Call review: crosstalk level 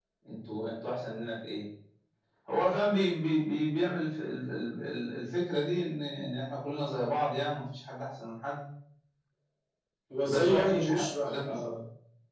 present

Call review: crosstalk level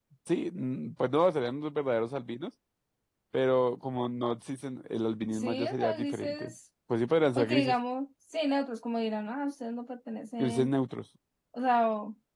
present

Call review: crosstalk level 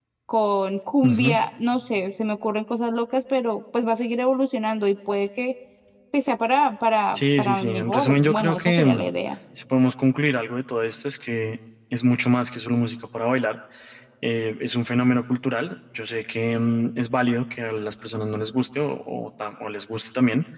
present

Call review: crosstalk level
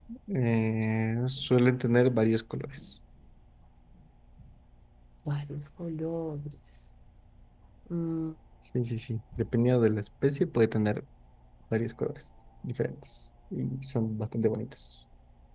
none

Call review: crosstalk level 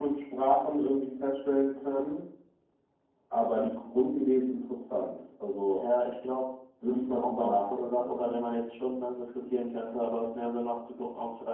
present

